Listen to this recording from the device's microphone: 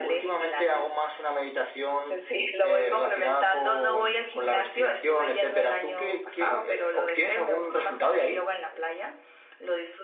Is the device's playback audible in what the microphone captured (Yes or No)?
Yes